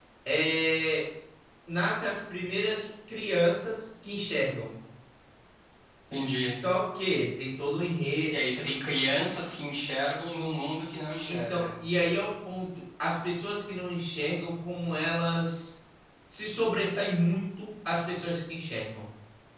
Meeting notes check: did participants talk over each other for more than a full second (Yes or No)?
No